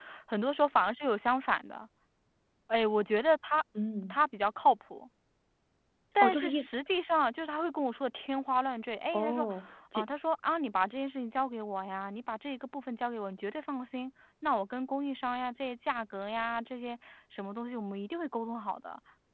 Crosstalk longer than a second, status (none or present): none